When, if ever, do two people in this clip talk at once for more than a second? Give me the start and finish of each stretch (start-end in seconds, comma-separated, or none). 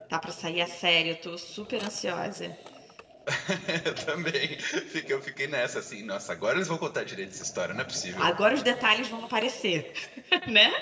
none